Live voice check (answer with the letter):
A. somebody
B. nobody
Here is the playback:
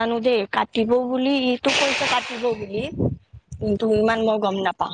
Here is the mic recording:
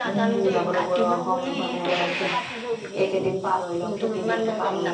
A